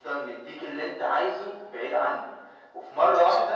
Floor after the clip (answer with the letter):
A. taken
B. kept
B